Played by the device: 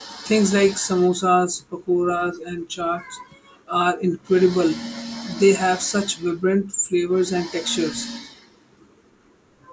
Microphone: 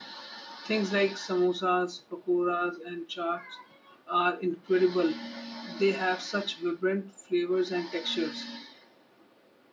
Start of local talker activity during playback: none

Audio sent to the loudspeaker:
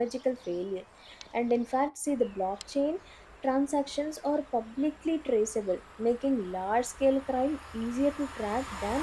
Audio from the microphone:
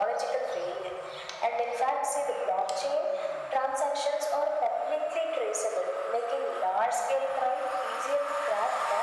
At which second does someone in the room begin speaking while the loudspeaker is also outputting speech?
none

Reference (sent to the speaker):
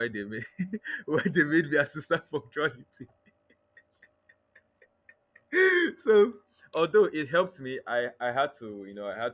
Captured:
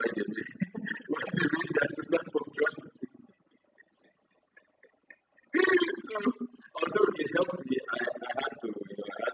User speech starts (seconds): none

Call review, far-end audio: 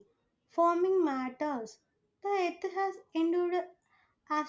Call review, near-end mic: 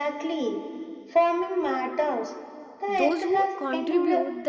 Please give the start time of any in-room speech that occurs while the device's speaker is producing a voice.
2.9 s

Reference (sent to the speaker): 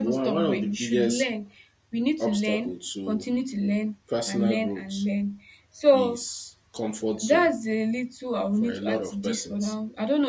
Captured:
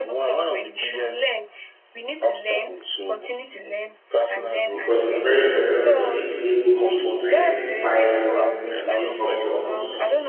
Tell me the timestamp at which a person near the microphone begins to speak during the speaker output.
4.7 s

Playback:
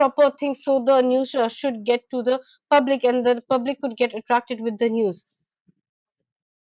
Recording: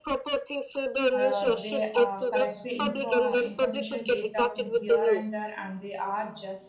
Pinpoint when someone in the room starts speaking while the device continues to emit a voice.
1.2 s

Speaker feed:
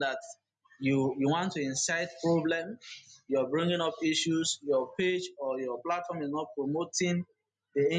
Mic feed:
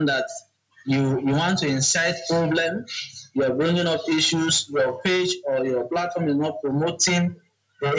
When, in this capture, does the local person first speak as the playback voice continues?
none

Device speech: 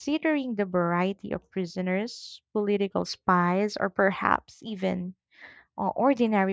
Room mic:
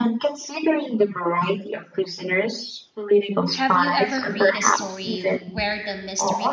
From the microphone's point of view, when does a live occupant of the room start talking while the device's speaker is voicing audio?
3.5 s

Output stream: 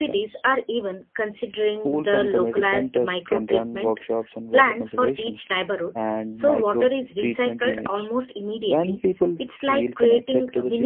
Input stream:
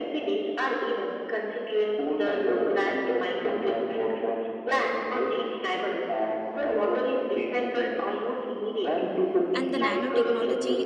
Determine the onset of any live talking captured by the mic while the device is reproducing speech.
9.5 s

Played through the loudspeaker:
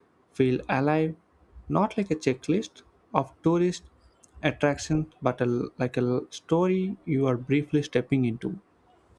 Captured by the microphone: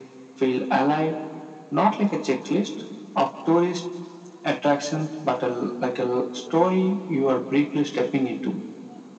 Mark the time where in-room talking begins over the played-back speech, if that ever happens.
none

